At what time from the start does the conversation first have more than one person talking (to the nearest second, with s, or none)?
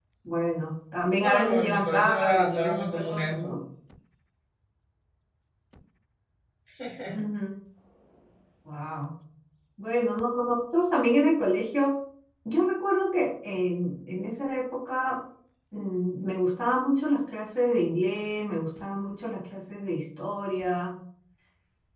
1 s